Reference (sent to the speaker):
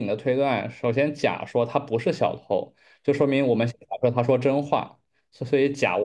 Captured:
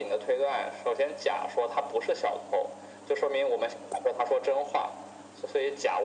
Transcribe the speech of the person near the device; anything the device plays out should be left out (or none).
none